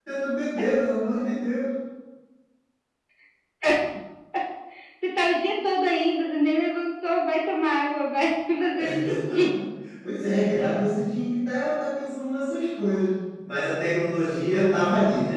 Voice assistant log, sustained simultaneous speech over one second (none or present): none